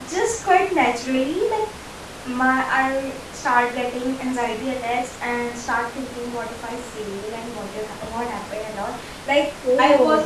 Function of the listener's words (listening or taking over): listening